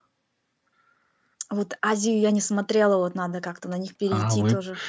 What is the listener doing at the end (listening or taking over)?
taking over